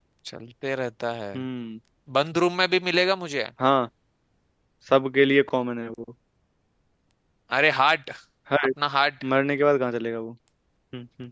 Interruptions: none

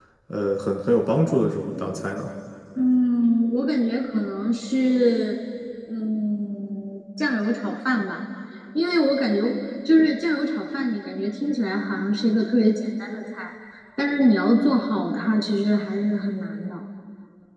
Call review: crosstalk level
none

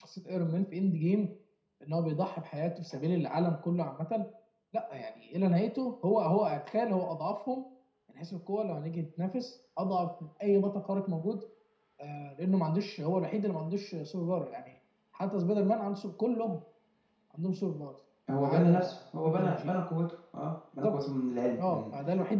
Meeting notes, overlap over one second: present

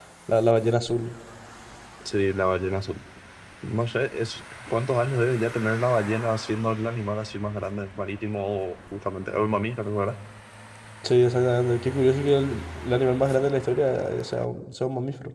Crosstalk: none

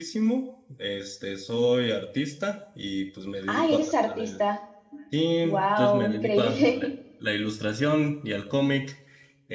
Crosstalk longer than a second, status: present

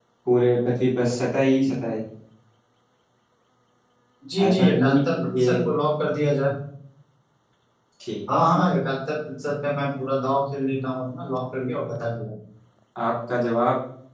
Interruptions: present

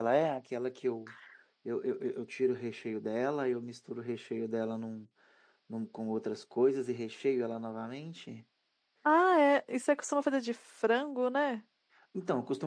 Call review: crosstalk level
none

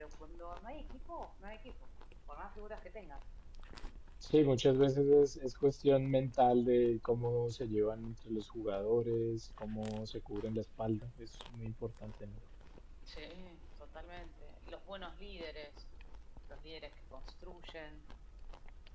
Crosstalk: none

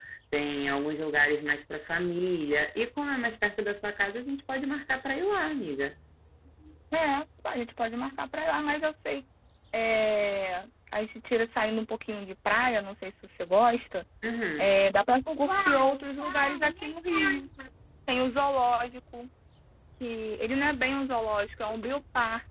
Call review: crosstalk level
none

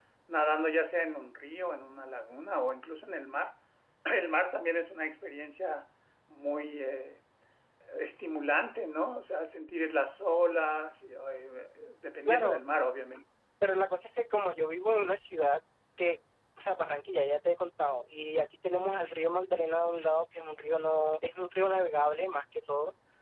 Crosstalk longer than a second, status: none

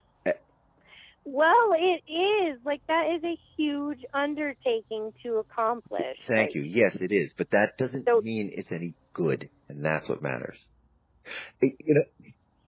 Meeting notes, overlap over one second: none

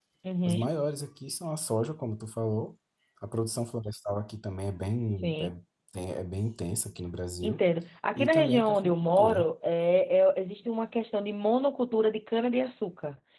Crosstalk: present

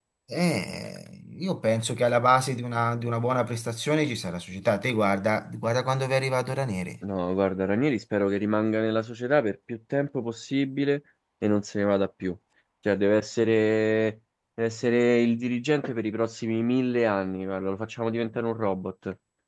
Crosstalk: none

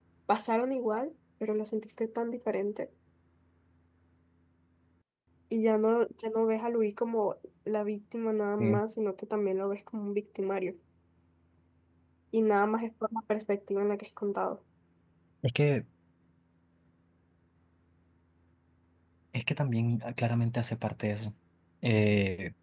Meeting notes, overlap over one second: none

